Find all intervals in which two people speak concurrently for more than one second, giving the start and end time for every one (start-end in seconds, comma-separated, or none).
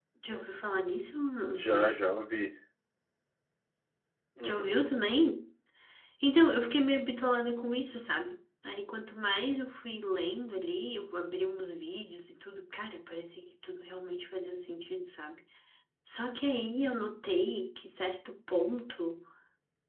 none